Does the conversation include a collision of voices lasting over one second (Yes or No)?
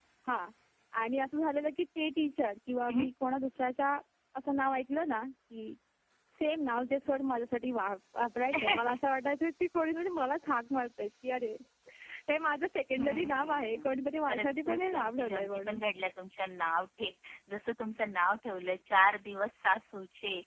Yes